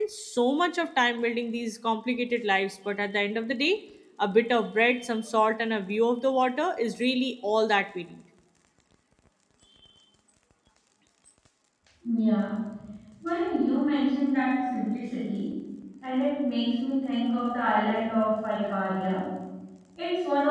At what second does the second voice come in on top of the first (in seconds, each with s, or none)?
none